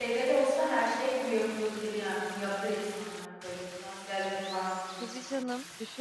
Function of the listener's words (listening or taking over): taking over